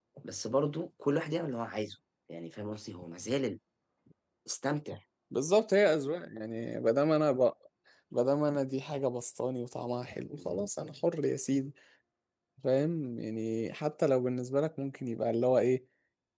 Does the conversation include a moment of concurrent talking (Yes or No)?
No